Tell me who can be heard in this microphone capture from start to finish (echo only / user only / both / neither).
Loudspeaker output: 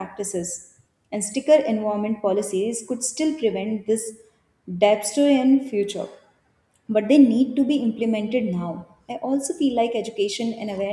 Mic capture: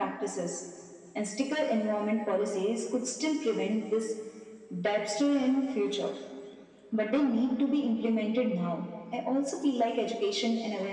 echo only